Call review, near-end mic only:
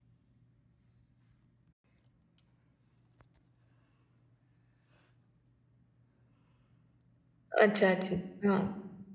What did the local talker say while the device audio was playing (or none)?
अच्छा-अच्छा. हां.